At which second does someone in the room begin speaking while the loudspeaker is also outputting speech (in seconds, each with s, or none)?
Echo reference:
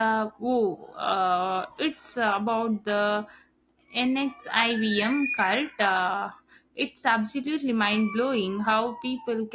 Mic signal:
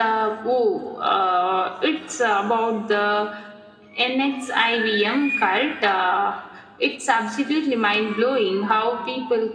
none